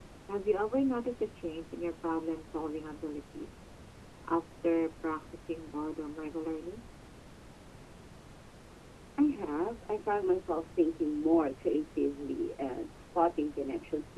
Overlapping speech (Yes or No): No